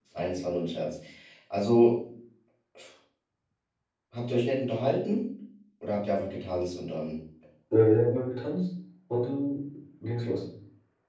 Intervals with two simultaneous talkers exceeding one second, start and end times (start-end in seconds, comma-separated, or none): none